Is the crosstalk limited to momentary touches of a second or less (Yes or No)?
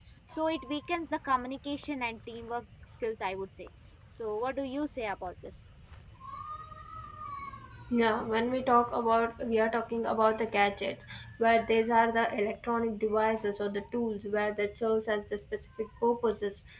Yes